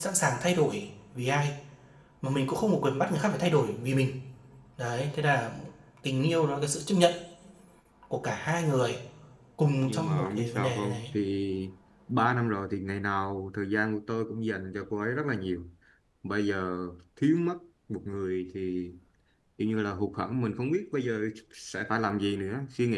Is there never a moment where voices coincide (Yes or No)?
No